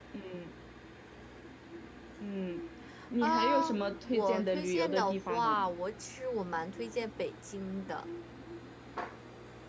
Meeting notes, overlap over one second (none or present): present